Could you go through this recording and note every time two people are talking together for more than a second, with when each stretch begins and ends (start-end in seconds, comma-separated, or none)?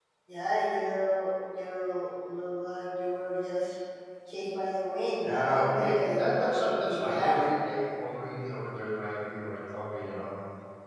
5.2-7.4